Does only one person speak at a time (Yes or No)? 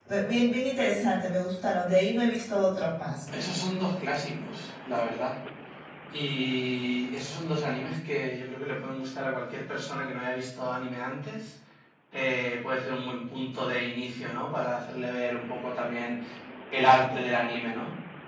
Yes